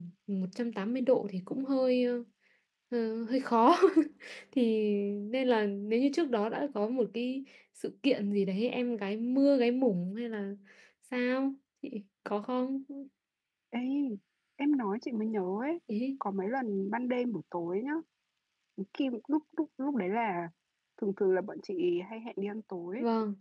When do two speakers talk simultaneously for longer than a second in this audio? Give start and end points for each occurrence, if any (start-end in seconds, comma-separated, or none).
none